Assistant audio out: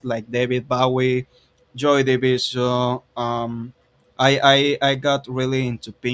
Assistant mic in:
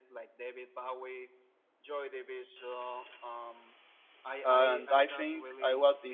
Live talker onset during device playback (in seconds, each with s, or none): 4.4 s